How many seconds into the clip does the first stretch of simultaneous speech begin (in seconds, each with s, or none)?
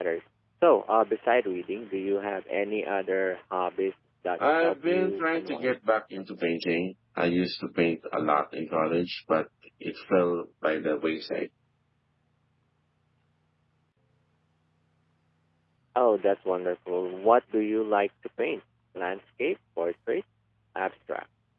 4.4 s